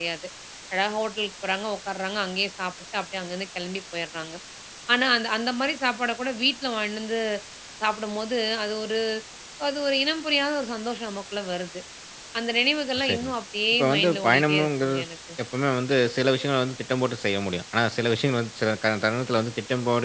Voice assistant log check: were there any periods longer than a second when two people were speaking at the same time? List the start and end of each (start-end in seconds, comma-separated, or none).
13.7-15.0